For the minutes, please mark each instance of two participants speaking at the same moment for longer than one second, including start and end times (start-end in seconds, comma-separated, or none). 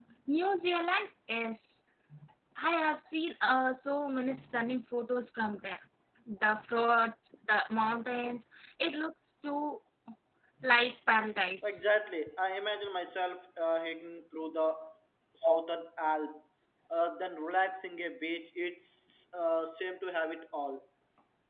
none